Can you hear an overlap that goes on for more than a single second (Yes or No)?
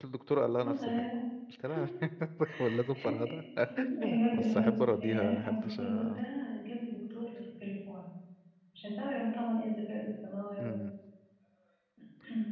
Yes